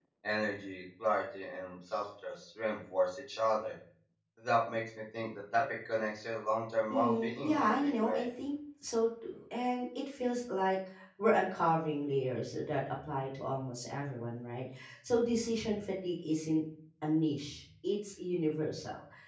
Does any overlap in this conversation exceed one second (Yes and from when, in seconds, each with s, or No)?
Yes, from 6.9 s